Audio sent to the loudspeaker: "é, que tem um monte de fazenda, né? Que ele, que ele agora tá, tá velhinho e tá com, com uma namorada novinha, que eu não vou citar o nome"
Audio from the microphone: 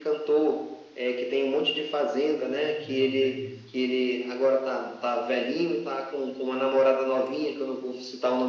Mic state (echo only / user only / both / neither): both